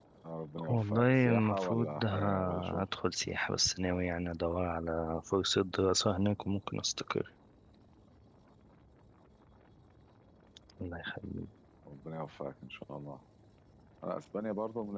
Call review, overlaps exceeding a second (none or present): present